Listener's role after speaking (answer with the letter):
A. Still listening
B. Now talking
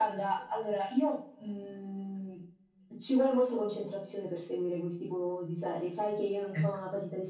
A